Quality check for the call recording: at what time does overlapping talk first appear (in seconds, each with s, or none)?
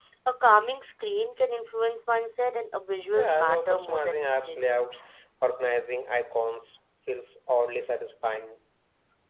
3.1 s